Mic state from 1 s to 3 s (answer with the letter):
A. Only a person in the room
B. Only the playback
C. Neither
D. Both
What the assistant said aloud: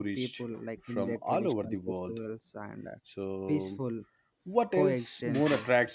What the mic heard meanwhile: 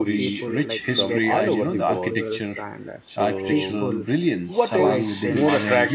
D